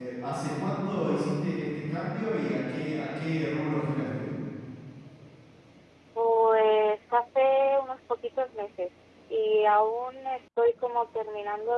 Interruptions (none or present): none